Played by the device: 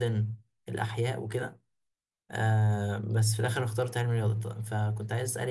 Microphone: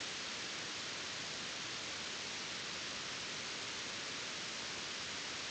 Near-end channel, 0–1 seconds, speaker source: neither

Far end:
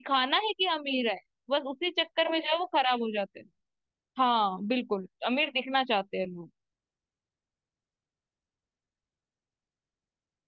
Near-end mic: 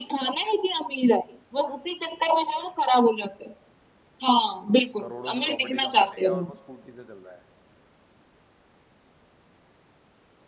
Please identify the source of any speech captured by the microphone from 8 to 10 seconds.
neither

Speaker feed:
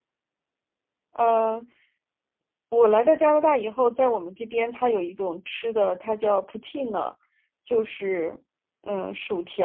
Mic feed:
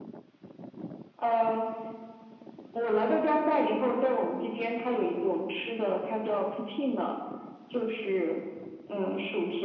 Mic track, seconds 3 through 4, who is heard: echo only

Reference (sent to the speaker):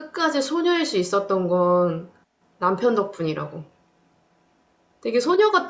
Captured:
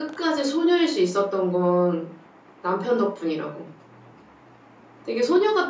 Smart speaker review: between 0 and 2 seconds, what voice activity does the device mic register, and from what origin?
echo only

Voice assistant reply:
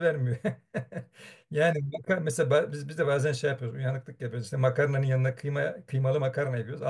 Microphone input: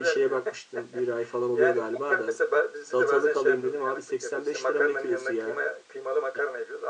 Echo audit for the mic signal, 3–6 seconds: both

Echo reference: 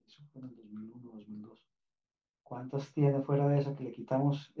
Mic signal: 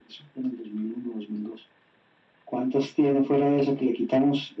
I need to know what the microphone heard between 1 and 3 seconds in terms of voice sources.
echo only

